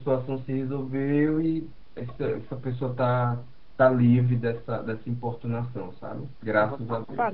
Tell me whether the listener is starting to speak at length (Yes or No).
Yes